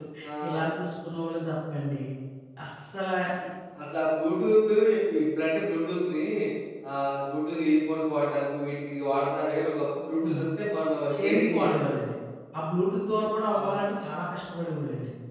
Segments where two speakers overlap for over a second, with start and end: none

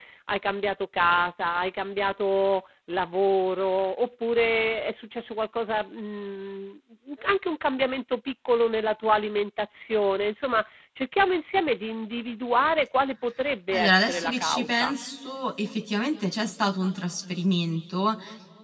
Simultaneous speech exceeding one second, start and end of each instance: 13.7-14.9

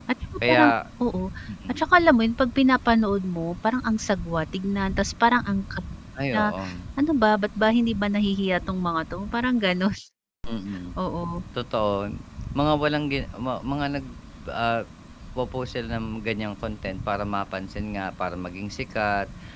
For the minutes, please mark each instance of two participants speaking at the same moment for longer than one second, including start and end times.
none

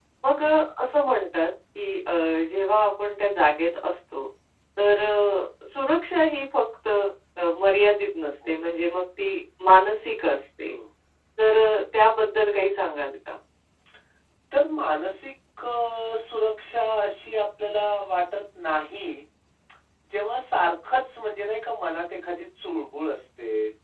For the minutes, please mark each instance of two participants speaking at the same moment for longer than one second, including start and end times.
none

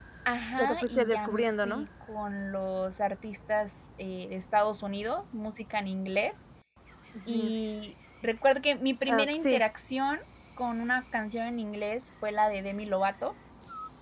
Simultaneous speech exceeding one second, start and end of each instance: 0.6-1.8

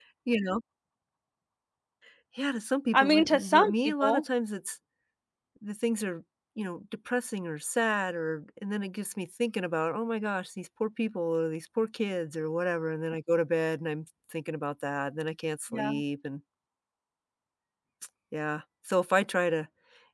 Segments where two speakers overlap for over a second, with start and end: 2.9-4.2

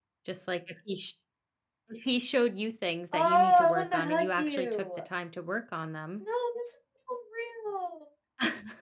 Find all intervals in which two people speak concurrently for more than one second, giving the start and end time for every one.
3.1-5.0

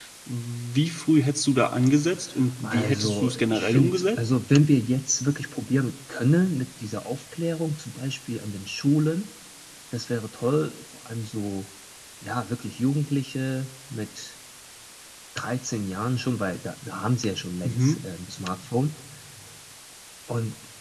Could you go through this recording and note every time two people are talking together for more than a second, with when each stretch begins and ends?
2.6-4.2

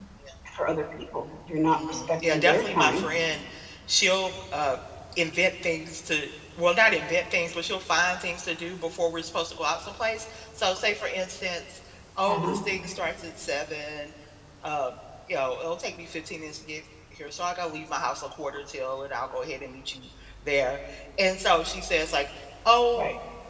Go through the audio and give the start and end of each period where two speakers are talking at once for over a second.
1.7-3.0

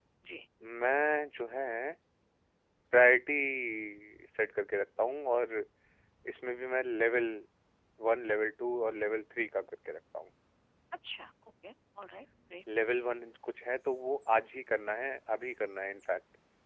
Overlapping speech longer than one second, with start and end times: none

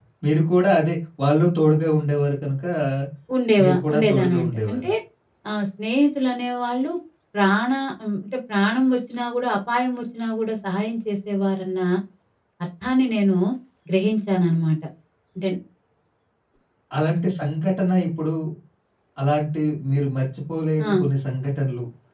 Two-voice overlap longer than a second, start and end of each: 3.6-4.9

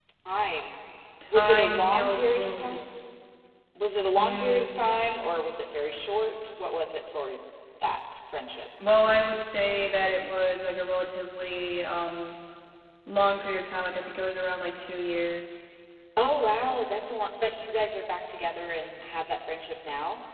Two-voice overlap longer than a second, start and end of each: 1.3-2.8

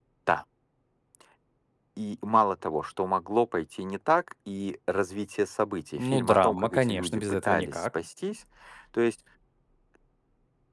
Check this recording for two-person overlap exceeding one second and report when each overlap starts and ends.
6.0-8.0

